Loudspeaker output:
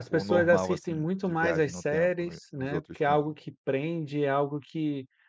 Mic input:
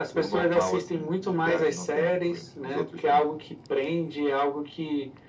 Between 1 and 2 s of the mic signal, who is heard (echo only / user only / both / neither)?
echo only